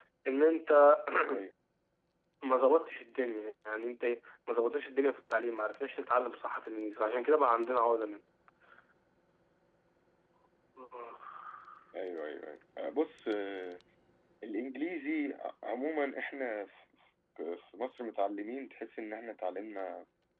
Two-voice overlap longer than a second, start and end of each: none

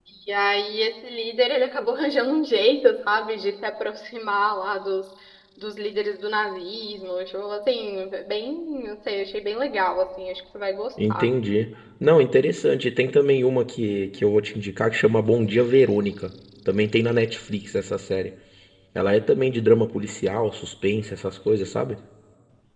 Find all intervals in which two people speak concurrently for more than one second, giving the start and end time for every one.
none

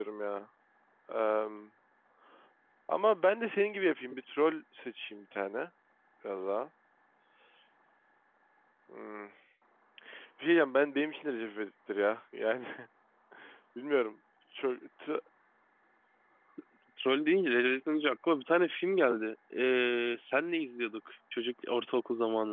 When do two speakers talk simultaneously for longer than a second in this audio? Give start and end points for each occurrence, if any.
none

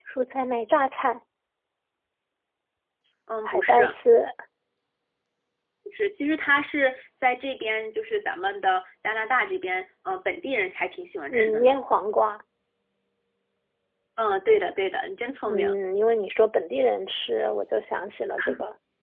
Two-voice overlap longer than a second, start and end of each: none

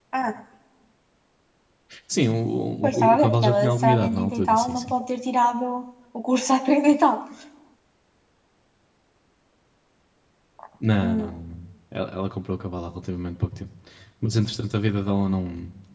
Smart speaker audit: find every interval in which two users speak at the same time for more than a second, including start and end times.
2.8-4.9

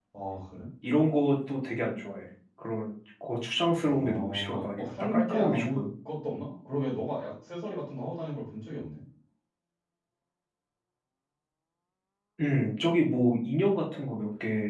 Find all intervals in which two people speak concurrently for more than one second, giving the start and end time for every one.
3.8-5.8

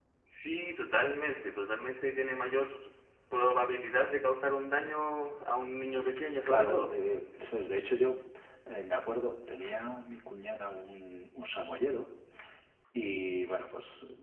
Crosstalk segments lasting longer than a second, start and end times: none

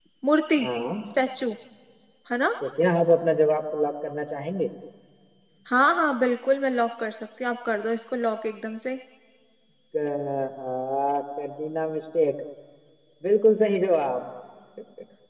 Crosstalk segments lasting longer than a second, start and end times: none

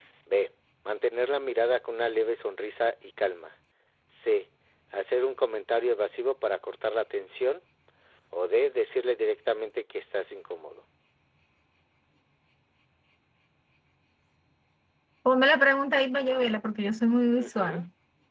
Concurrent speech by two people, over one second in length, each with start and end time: none

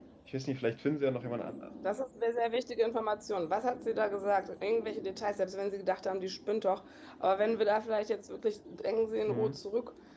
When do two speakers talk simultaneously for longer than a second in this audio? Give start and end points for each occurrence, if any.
none

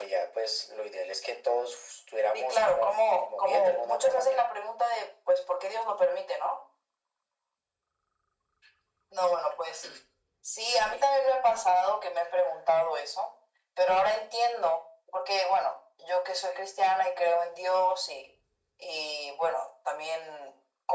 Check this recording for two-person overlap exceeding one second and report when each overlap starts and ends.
2.3-4.4

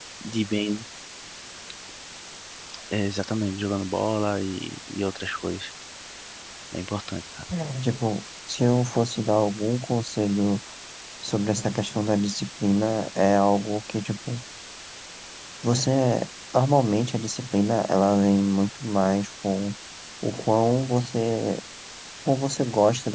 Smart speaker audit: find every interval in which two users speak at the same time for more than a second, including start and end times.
none

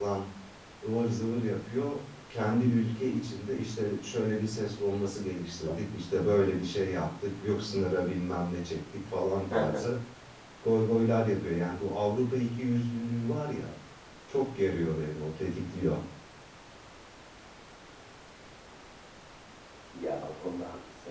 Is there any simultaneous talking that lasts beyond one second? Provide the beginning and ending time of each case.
none

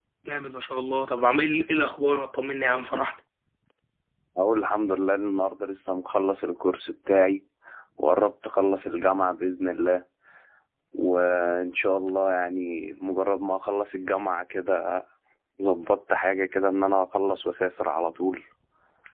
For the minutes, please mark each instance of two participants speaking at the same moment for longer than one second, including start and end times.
none

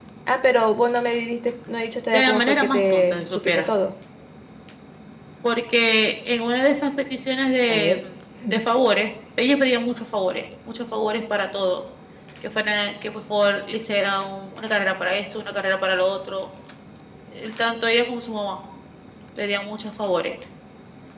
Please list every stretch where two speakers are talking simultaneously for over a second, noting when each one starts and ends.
2.1-3.7

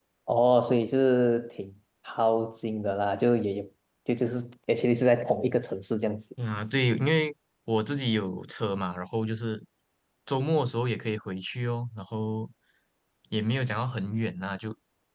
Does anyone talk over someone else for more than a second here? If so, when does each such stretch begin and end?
none

